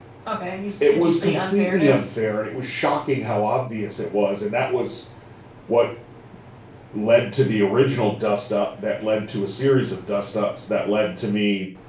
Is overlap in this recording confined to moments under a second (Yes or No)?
No